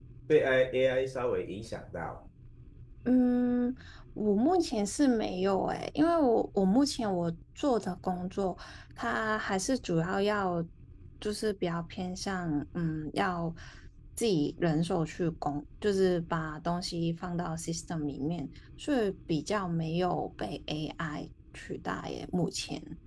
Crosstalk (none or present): none